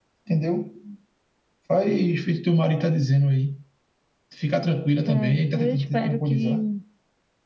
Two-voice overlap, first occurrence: 5.1 s

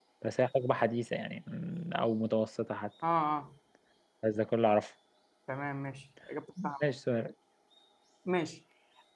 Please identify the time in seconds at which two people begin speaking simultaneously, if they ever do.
none

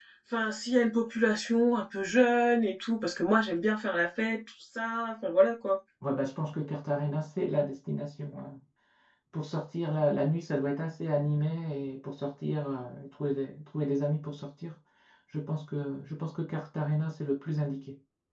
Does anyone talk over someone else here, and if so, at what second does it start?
none

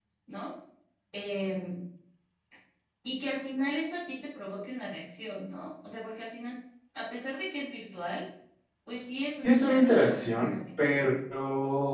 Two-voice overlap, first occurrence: 9.4 s

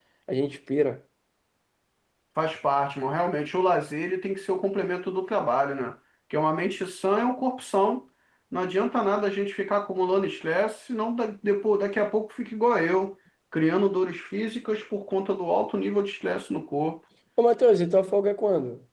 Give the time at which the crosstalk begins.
none

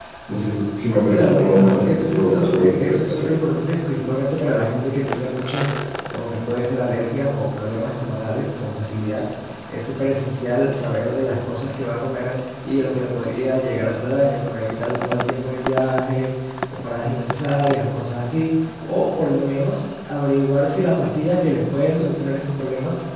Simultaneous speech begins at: 1.1 s

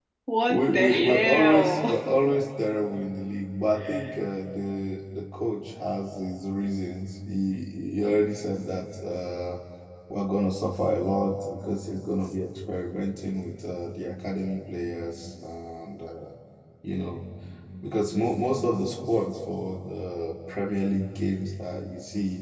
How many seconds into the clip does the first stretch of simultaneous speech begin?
0.5 s

